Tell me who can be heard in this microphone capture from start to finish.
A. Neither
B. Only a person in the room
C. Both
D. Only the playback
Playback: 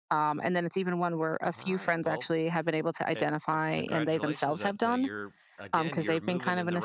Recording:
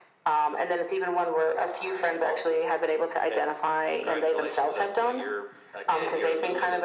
D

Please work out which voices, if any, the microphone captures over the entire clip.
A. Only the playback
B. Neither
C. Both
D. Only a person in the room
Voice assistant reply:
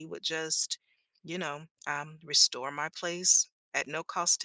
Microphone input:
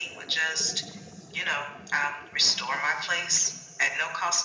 A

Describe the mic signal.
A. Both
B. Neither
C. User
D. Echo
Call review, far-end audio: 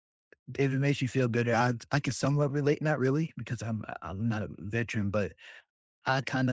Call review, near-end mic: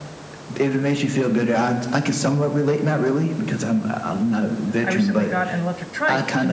A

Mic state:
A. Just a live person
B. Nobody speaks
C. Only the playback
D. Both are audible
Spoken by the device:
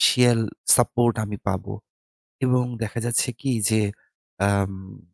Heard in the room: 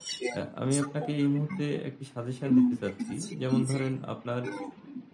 D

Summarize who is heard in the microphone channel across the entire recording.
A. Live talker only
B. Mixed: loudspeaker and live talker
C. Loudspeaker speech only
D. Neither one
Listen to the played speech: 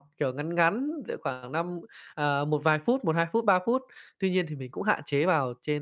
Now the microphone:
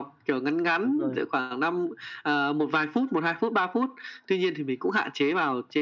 B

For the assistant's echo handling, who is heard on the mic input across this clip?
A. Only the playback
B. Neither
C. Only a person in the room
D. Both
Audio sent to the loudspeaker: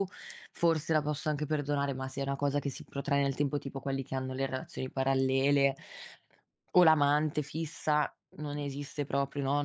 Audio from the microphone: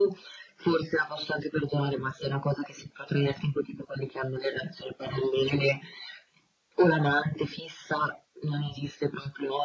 A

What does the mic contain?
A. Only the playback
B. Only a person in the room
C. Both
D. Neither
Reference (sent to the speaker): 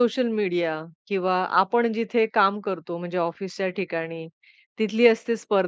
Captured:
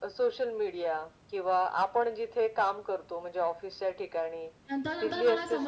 C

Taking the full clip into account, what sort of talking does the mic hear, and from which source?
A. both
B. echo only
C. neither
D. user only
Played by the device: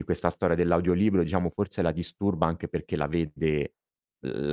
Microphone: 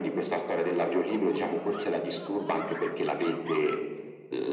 B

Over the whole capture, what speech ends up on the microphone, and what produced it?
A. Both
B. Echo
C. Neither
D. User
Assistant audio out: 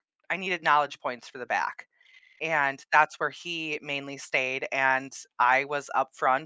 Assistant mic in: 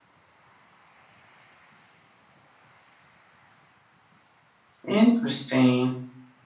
D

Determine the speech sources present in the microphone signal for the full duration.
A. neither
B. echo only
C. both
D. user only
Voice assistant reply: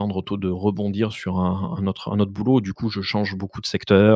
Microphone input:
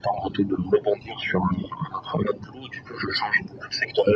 B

